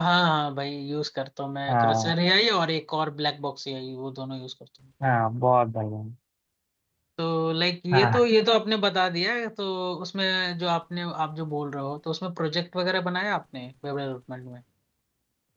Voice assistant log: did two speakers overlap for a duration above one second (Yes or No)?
No